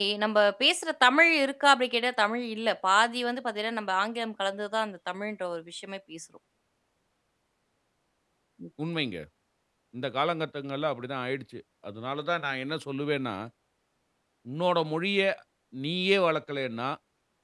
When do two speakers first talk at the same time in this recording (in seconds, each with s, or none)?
none